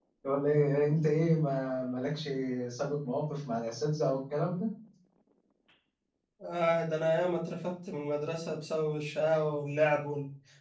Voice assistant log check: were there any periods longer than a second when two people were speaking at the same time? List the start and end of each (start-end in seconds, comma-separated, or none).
none